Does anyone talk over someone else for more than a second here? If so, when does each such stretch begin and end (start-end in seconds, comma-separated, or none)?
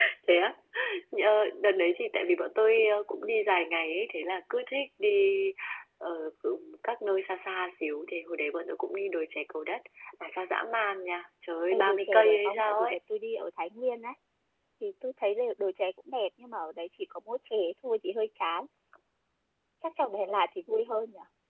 11.7-13.0